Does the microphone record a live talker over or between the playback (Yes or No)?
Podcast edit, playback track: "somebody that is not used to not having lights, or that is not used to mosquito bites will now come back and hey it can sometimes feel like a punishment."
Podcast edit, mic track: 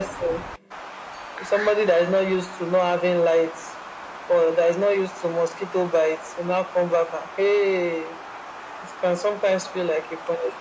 No